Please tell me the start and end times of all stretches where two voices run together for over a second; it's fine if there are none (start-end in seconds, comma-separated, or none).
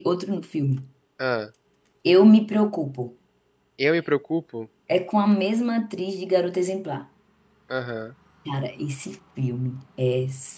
none